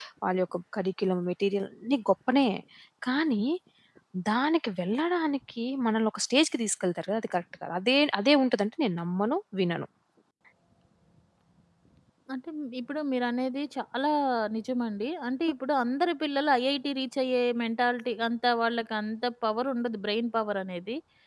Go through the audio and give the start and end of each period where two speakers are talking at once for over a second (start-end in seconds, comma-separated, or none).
none